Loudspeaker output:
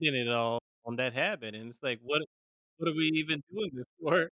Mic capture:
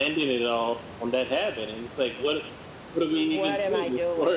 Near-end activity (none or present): present